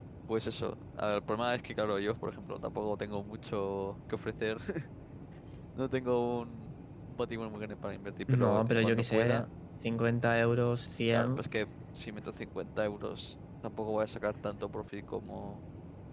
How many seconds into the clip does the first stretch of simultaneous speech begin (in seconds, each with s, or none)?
8.3 s